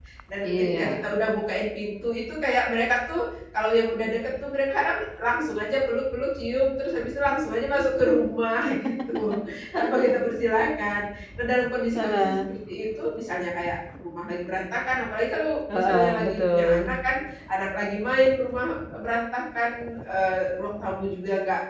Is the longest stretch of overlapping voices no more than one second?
No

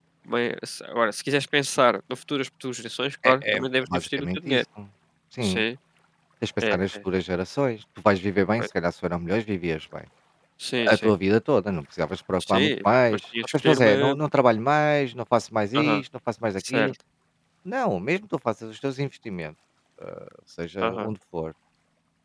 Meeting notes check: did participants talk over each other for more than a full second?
Yes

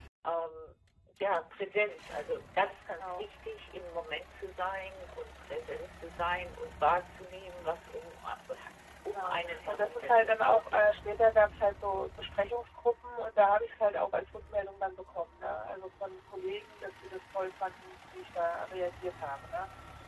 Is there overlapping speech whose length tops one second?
Yes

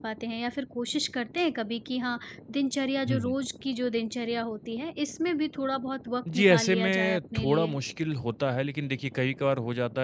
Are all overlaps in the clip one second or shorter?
No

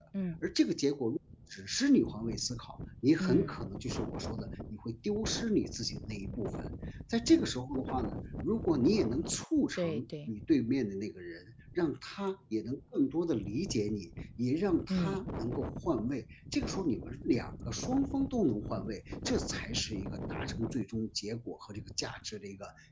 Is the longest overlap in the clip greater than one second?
No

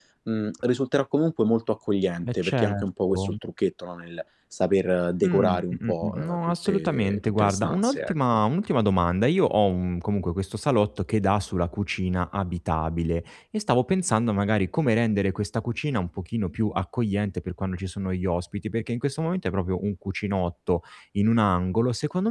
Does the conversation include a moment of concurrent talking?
Yes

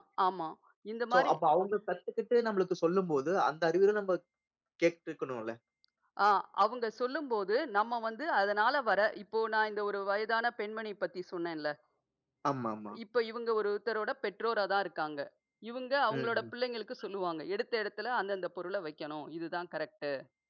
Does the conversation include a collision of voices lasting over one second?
No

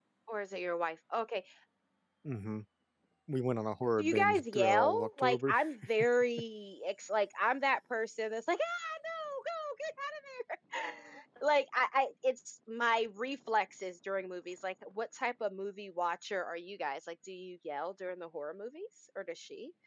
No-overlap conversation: No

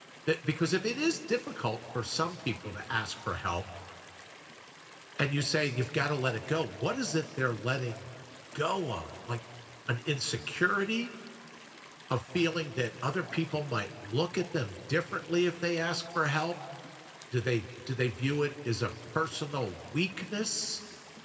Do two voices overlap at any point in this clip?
No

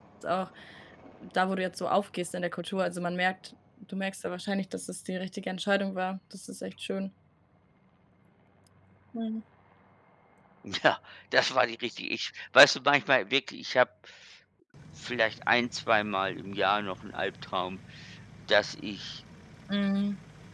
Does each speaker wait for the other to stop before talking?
Yes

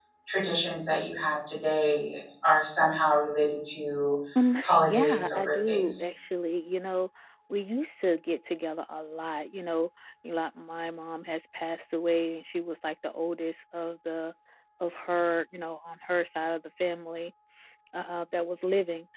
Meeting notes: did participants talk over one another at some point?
Yes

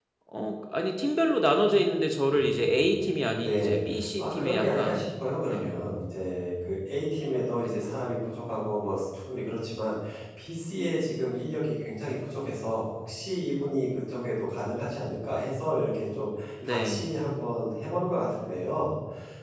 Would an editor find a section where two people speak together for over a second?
Yes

